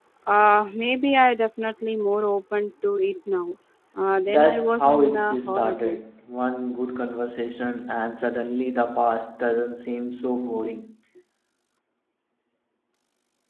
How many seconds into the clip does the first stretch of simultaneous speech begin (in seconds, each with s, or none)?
4.3 s